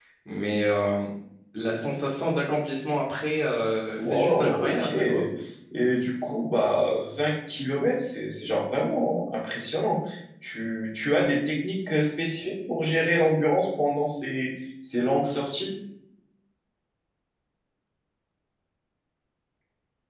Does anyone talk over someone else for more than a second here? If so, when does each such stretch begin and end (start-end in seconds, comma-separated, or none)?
4.0-5.2